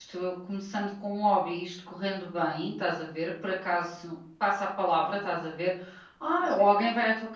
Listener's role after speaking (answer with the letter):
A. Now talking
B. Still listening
B